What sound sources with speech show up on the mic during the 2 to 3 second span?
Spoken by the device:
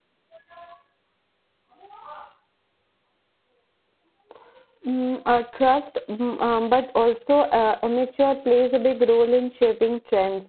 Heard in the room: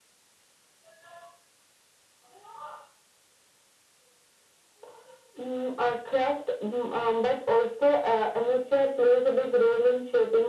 neither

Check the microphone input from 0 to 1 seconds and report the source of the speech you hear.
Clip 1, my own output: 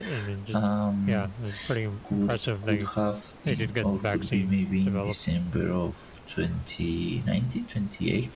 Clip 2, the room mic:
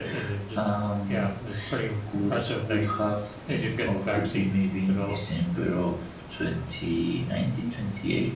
echo only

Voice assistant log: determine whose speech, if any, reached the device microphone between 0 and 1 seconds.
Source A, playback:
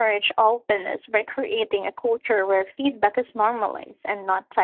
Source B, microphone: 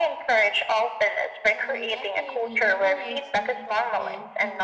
echo only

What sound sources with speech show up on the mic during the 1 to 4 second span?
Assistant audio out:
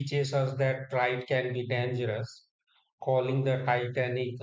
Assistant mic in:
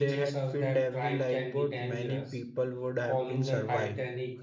both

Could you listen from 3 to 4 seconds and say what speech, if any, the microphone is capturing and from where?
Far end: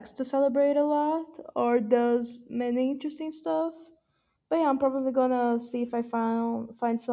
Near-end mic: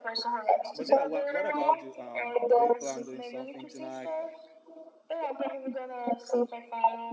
both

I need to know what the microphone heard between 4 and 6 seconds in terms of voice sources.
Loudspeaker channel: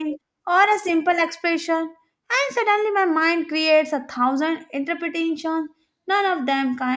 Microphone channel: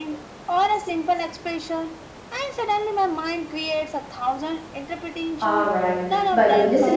both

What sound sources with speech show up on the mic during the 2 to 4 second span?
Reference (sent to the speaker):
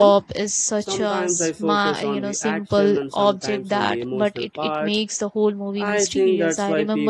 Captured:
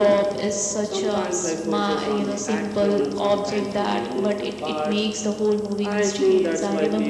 echo only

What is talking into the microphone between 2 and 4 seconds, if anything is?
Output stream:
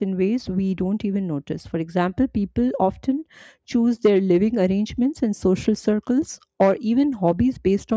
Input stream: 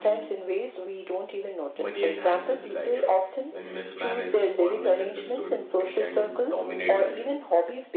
both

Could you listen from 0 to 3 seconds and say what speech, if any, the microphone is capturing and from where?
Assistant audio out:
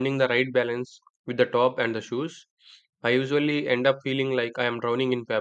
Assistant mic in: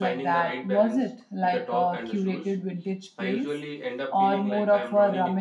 both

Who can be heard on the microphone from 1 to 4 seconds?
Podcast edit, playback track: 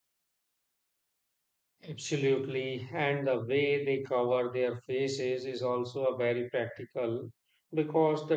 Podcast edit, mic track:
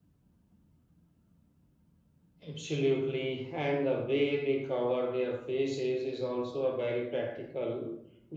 echo only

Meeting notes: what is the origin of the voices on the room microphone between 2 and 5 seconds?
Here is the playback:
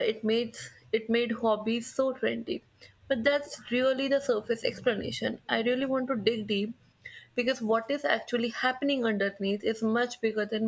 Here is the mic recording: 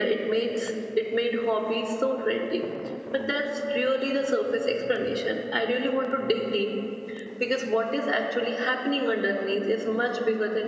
echo only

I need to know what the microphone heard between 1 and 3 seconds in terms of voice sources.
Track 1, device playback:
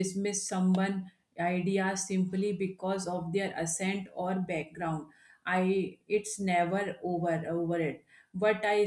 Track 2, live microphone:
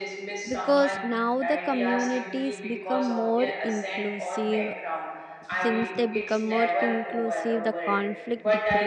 both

